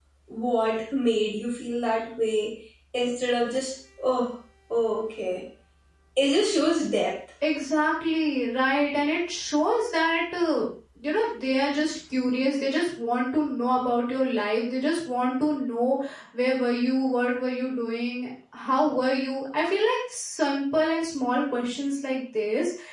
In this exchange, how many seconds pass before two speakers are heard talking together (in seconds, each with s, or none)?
none